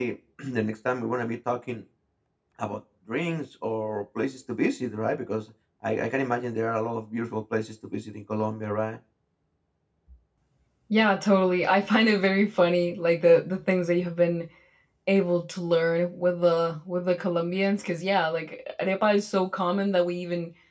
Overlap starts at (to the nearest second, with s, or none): none